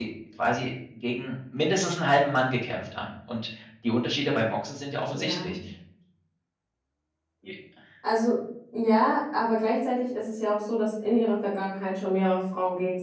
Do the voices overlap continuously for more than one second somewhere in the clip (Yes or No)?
No